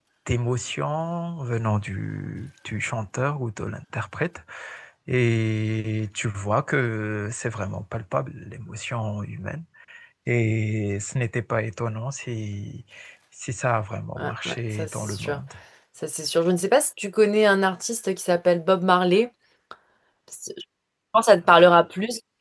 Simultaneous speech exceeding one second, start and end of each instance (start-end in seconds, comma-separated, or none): 14.2-15.4